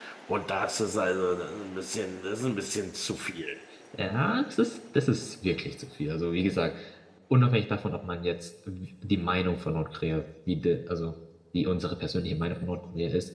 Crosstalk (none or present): none